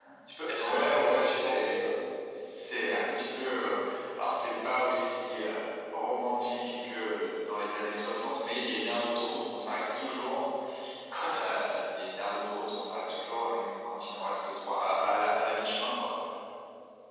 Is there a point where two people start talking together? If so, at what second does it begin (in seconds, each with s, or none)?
0.6 s